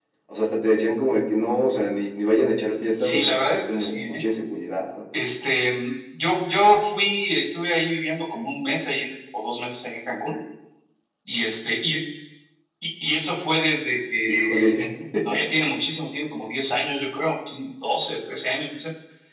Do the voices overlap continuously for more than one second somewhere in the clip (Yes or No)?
Yes